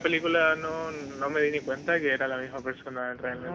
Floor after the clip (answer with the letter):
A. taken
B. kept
A